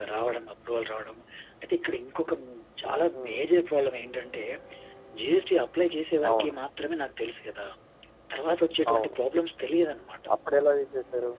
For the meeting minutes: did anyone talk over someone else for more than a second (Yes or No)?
No